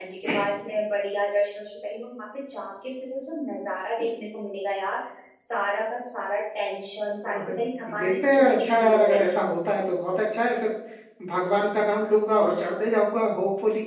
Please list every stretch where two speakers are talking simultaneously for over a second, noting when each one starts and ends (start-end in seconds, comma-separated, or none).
8.0-9.4